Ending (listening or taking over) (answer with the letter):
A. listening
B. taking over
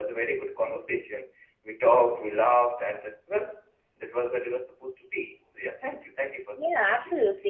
B